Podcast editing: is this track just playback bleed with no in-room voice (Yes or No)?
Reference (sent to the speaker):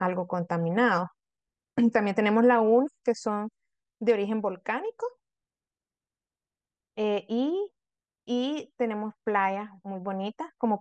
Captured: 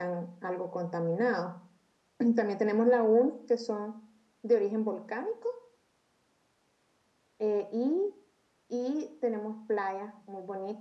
Yes